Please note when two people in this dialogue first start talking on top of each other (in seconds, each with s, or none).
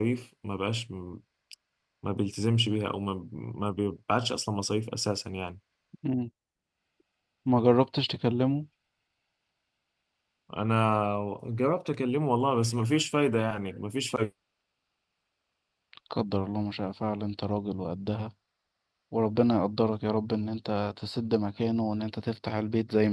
none